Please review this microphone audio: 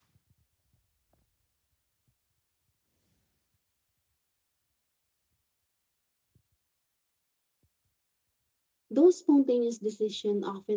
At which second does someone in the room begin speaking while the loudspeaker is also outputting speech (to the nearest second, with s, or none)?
9 s